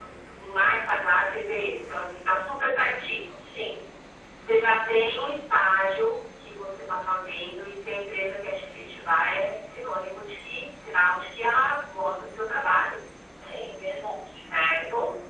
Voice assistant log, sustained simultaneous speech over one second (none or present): none